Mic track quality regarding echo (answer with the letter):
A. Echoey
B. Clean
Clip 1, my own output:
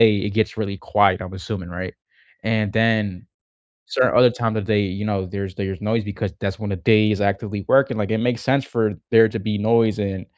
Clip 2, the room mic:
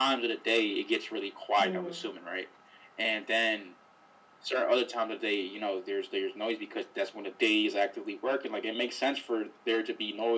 A